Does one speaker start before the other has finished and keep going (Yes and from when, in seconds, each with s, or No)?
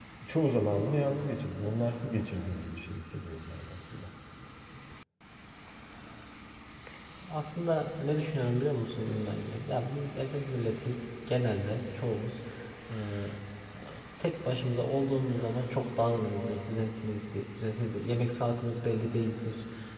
No